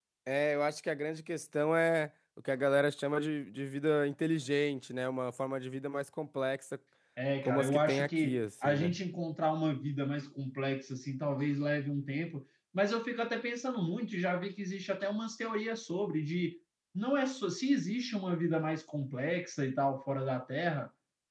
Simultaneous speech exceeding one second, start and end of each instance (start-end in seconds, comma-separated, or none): 7.5-8.9